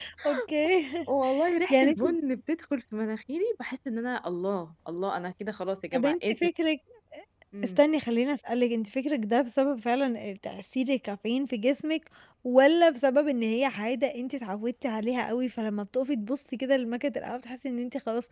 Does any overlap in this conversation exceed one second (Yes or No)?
No